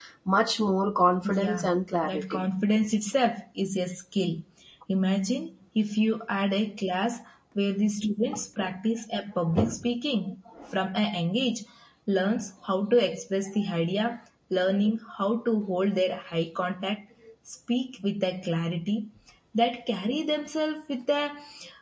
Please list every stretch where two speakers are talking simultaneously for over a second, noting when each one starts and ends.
none

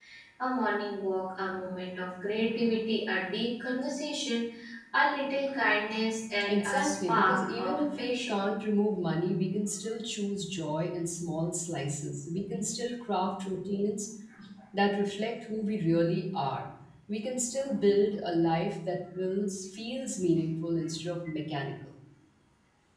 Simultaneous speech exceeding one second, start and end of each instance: 6.5-8.4

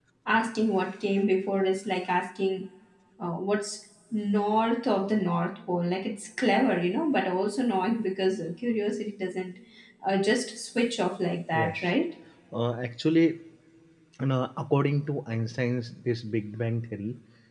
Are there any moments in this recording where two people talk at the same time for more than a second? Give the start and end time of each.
none

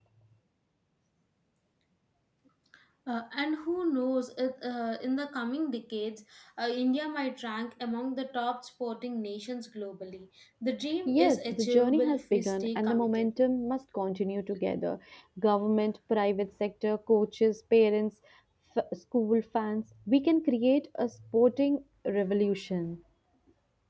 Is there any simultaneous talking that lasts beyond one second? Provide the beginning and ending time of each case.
11.1-13.3

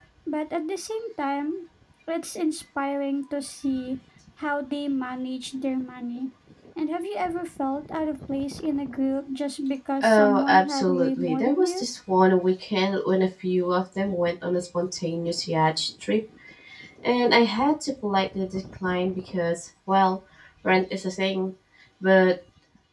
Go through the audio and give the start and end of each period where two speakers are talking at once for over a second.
10.0-11.8

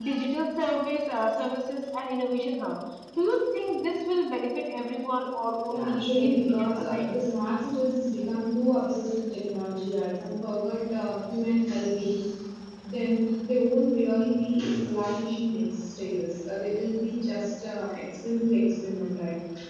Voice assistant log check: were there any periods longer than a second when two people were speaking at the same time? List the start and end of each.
5.7-7.0

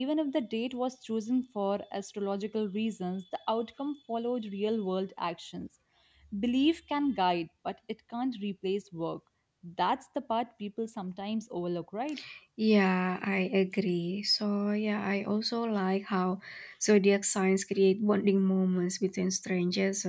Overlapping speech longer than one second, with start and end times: none

